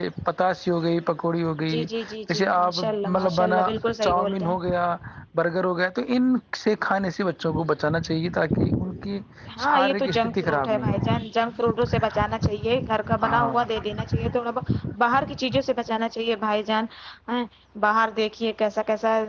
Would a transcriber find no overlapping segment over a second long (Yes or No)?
No